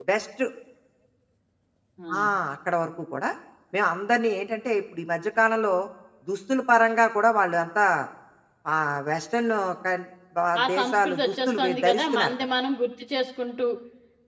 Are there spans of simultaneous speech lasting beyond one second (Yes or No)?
Yes